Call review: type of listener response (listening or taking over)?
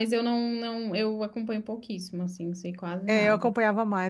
taking over